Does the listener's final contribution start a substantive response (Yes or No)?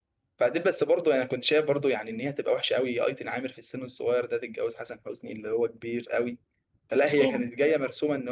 No